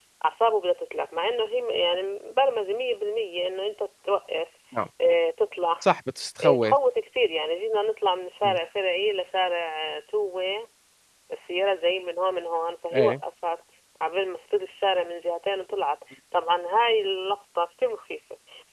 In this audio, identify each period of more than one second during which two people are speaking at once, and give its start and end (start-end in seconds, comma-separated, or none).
none